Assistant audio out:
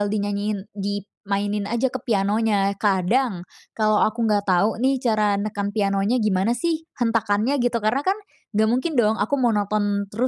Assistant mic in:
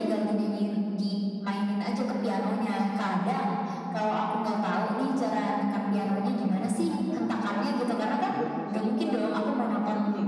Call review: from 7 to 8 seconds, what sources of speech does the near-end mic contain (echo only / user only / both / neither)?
both